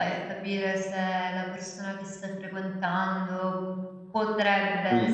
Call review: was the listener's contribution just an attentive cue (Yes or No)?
Yes